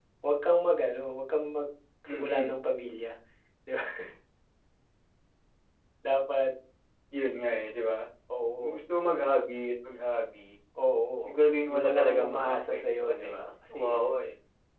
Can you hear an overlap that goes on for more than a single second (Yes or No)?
Yes